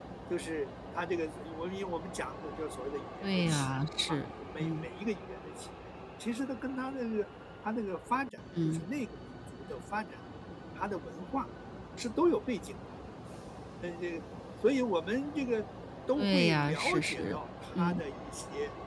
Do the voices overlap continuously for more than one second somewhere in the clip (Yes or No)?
Yes